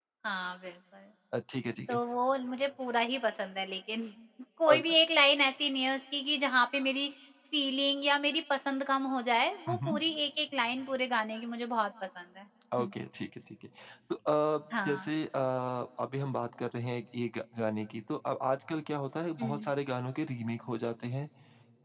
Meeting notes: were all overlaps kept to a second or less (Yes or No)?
Yes